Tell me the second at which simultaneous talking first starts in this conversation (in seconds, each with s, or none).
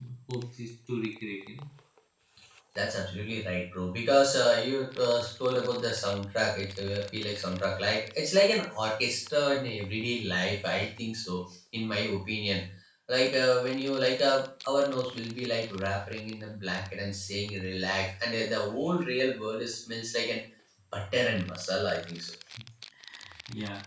none